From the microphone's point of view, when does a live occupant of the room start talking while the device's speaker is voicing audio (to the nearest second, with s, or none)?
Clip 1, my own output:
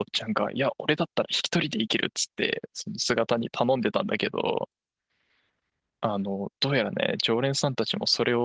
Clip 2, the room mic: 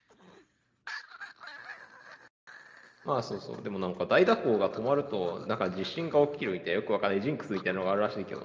3 s